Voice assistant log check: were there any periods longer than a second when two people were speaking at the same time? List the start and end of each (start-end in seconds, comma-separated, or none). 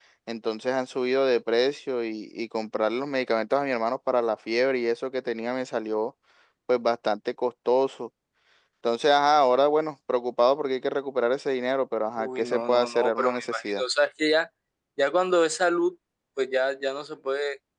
12.2-13.8